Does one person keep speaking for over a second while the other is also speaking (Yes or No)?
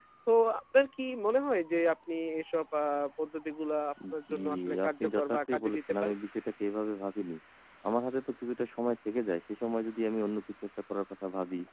Yes